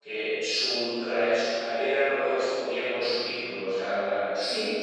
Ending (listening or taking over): listening